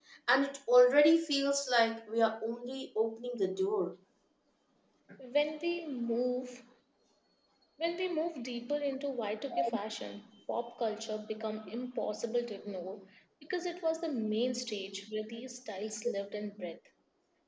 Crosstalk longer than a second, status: none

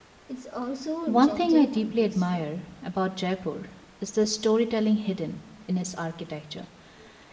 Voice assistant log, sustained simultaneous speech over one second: present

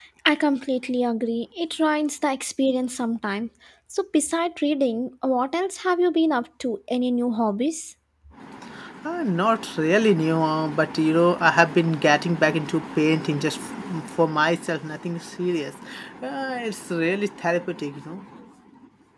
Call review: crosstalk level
none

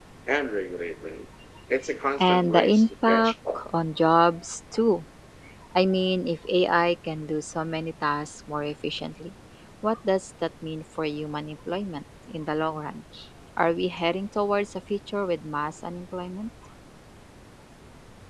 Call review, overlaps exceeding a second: present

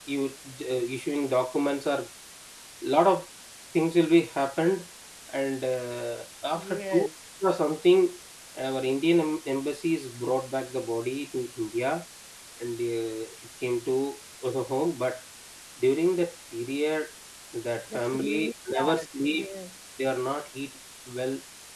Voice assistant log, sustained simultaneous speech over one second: present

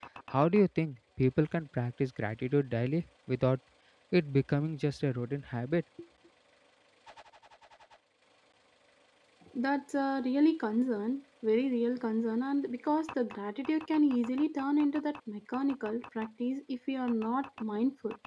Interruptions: none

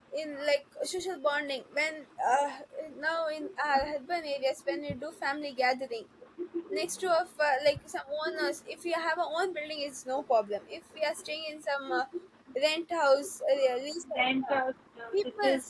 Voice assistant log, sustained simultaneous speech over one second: none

